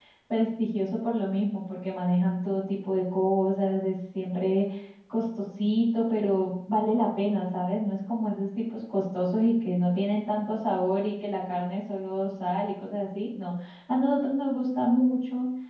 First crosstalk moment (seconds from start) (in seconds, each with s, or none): none